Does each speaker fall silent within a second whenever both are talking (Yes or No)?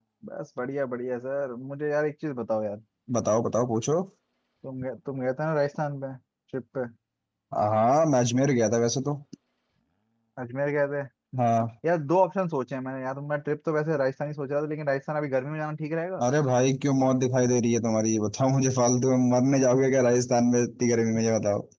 Yes